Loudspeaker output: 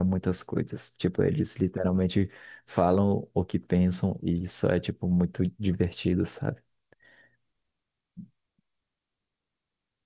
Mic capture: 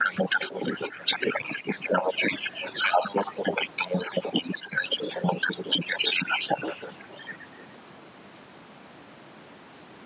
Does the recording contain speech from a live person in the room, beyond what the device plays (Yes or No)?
No